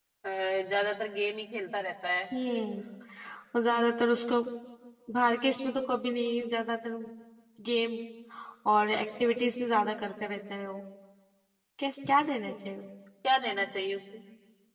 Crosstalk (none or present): none